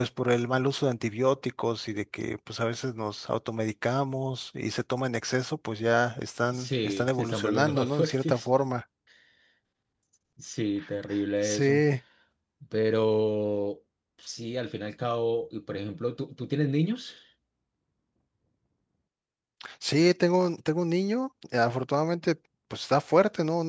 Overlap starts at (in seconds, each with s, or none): 6.5 s